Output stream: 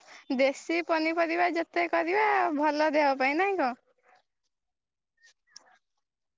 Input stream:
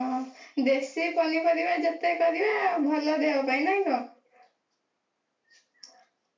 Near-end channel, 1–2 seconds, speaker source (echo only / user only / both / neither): echo only